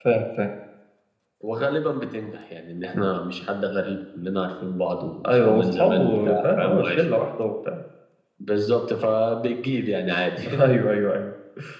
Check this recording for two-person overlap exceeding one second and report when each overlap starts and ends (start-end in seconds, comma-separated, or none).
5.3-7.0